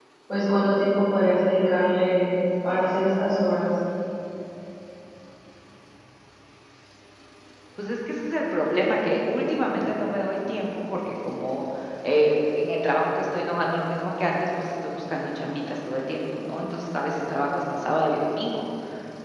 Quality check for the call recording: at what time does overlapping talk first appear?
none

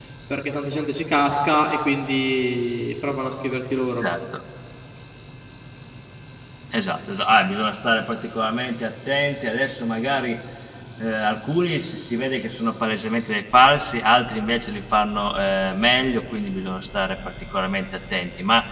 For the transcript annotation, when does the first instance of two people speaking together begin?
none

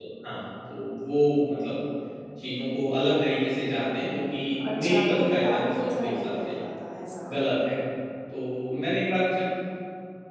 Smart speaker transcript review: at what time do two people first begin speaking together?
4.6 s

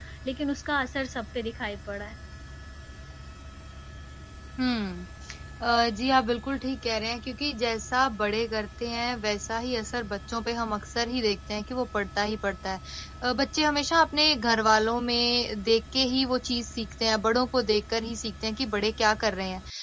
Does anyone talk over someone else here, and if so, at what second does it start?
none

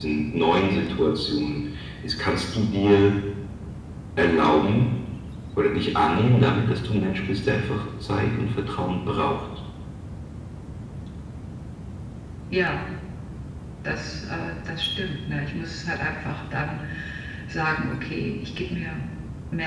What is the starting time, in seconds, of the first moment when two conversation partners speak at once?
none

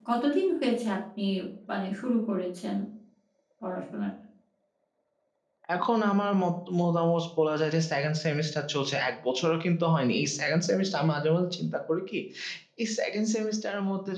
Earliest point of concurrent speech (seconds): none

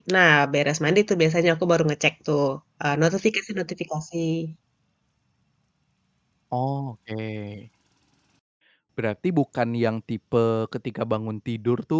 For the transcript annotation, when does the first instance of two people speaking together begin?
none

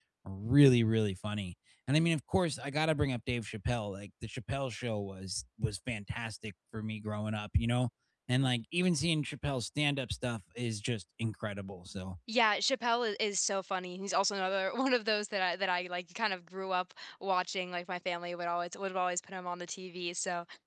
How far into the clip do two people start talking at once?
none

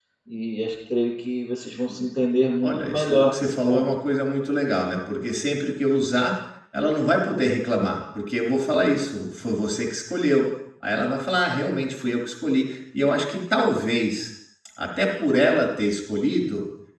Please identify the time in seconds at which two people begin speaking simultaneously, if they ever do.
2.6 s

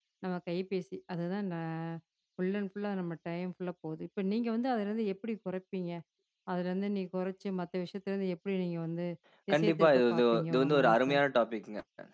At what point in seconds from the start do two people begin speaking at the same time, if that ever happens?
9.5 s

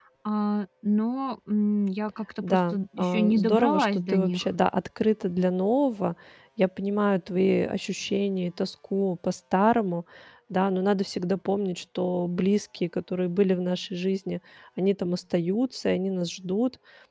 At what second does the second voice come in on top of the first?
2.4 s

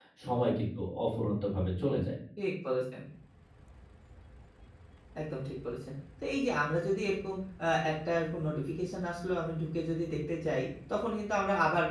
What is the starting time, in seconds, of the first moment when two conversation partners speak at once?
none

